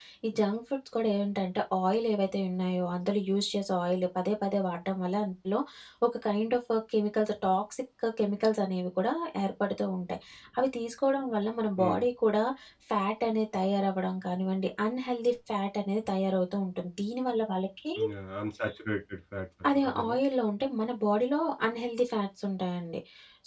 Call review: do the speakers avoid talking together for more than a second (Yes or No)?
Yes